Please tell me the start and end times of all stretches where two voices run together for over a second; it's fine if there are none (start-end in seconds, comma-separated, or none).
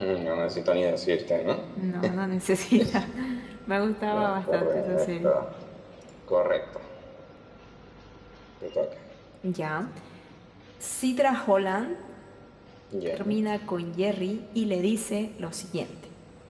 4.1-5.3